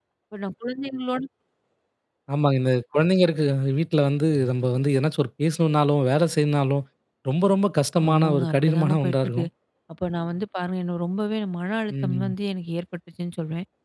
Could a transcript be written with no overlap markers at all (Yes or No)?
No